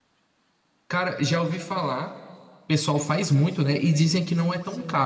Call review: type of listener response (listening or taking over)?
taking over